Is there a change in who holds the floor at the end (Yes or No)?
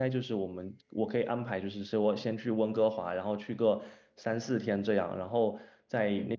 No